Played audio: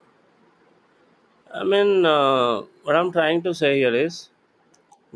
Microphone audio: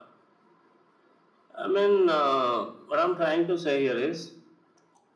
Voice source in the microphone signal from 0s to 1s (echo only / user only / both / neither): neither